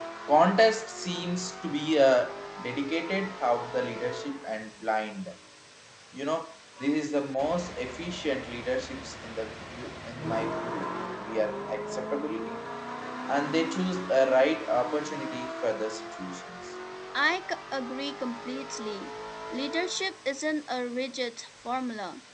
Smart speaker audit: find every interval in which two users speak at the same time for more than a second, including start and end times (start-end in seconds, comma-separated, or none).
none